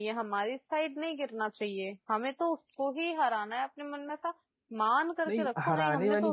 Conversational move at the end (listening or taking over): taking over